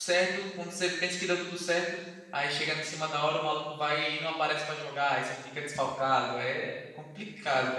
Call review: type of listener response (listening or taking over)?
taking over